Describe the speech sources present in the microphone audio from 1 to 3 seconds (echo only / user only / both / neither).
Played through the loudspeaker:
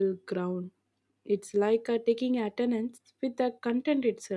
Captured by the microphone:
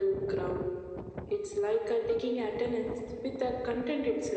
echo only